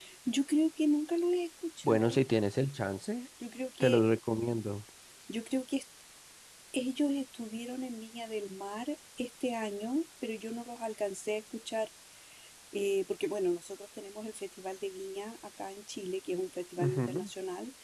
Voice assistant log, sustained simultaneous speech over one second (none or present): none